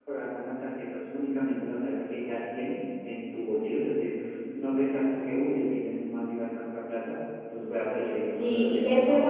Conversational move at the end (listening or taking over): taking over